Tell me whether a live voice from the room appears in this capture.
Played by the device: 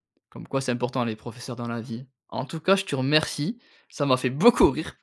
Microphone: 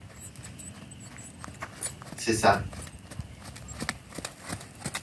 Yes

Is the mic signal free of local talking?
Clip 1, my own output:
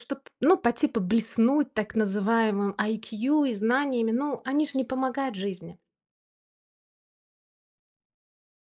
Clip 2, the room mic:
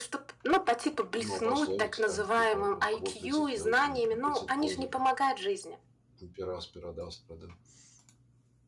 No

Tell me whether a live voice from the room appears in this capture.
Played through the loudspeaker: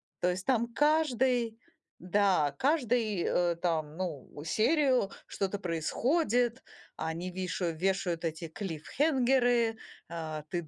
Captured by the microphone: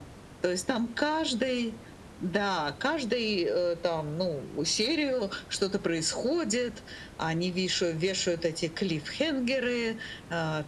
No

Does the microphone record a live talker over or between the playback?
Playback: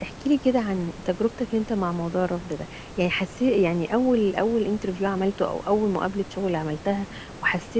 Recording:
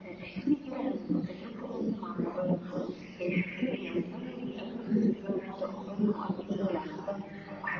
No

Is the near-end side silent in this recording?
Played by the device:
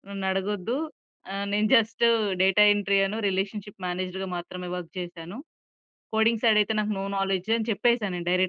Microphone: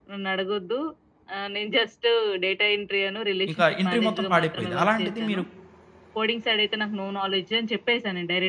No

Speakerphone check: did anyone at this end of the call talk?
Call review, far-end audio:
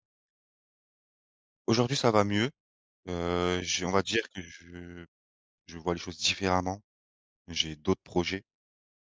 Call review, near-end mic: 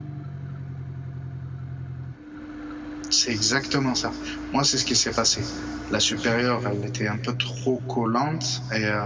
Yes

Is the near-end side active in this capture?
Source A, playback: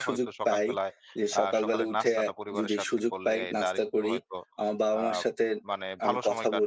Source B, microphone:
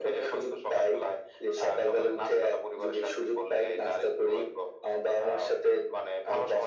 No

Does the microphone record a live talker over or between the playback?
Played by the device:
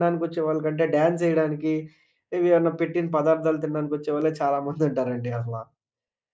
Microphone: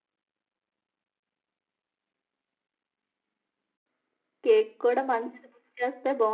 Yes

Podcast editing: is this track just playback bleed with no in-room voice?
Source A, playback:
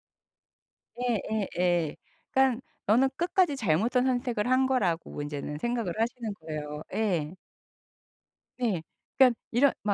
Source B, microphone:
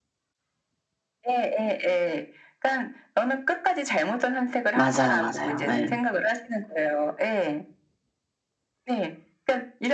No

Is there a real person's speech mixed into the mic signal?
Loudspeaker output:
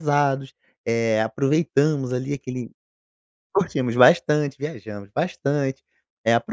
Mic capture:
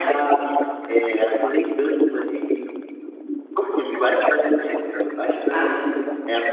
Yes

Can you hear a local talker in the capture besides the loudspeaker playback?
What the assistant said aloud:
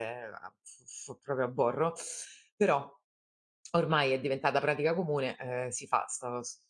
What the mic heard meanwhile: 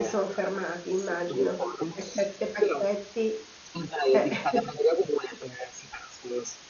Yes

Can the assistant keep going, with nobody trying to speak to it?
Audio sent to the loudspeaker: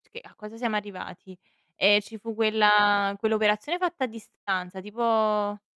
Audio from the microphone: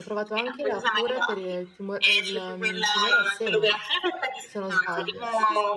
No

